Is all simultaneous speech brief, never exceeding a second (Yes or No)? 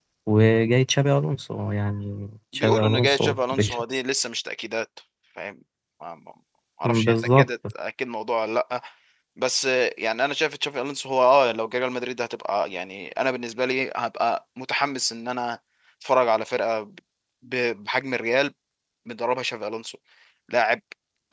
No